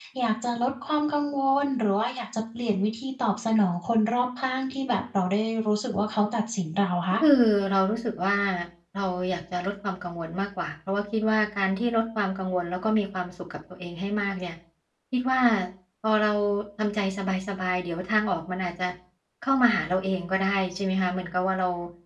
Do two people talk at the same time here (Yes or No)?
No